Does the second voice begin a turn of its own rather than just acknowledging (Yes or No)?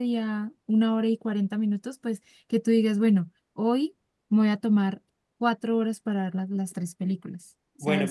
Yes